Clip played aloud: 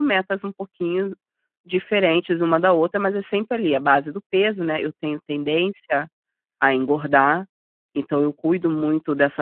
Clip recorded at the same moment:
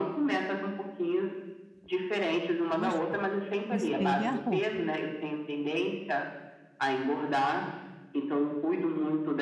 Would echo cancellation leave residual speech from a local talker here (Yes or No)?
Yes